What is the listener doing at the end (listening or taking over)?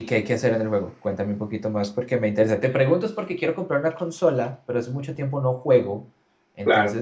listening